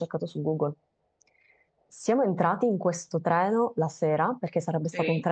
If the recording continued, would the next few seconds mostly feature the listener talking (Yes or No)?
No